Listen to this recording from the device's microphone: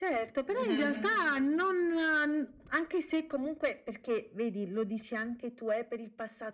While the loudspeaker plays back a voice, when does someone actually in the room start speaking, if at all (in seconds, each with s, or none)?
0.5 s